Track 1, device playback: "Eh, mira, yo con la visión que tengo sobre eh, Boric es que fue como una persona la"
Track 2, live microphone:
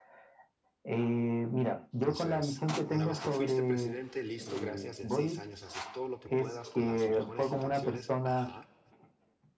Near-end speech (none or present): present